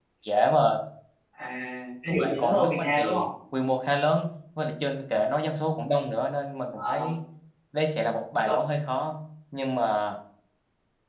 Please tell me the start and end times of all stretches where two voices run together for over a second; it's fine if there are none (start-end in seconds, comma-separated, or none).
2.0-3.3